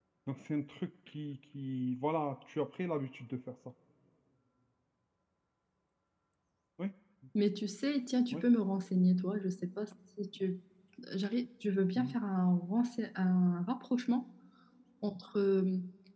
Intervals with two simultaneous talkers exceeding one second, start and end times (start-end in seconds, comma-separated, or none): none